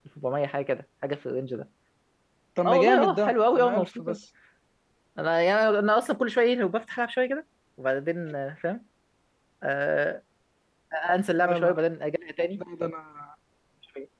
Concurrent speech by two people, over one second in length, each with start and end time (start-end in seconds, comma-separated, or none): 2.6-4.2